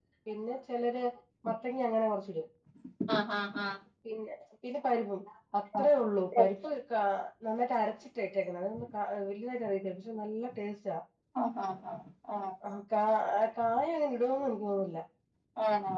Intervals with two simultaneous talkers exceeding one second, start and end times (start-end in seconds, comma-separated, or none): none